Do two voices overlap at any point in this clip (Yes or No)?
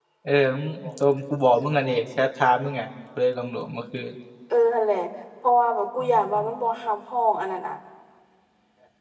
No